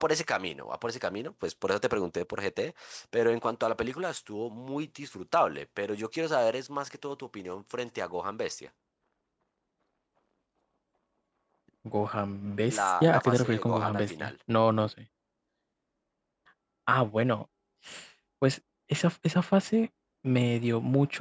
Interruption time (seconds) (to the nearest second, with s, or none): 13 s